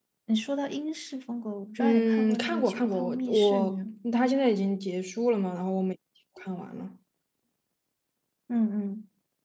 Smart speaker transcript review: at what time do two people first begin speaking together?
1.8 s

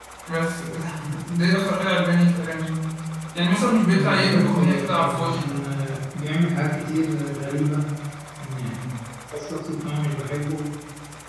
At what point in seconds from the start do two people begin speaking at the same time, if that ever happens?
3.9 s

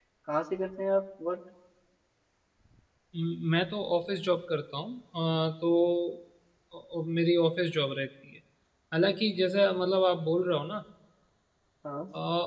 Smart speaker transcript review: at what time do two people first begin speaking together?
none

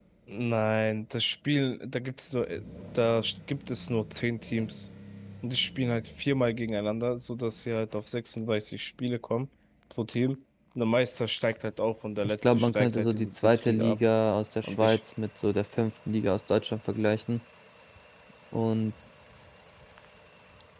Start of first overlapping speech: 12.2 s

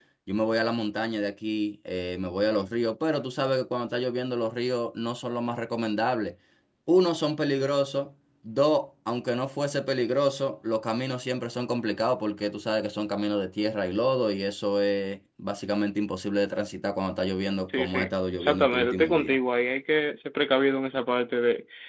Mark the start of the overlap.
17.7 s

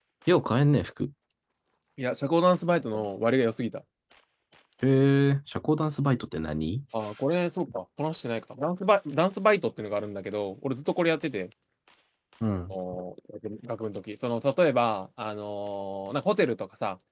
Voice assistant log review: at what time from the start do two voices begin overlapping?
none

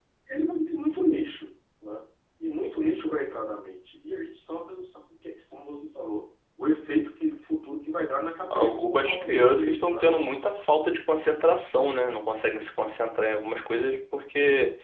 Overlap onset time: 8.5 s

